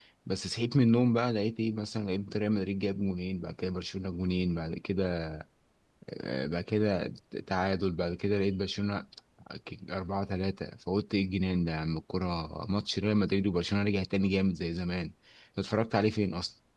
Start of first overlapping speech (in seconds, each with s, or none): none